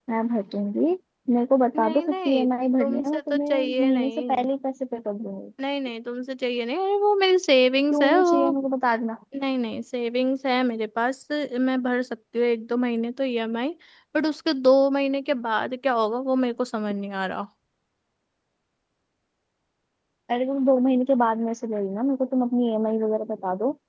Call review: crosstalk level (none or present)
present